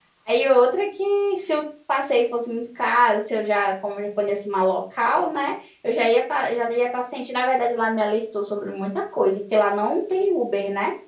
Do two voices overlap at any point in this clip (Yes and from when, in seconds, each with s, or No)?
No